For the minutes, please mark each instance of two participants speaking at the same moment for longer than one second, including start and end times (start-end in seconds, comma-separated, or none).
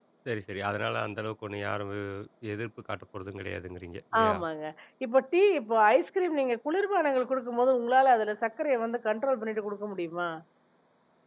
none